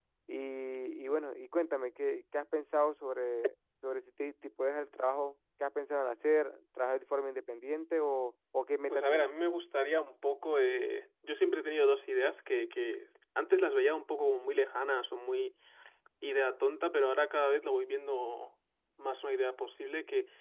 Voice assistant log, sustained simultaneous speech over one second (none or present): none